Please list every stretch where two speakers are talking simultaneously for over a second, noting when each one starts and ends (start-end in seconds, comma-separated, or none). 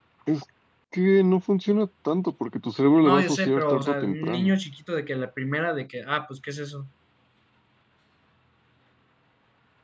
3.0-4.5